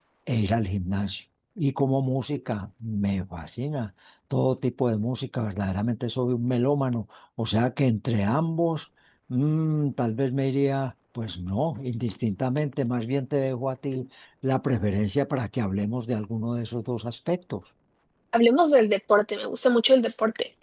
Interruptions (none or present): none